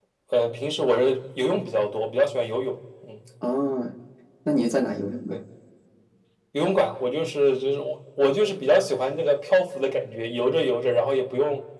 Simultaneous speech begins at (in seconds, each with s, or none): none